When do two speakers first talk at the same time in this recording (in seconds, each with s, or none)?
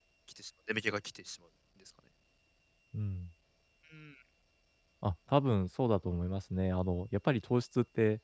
none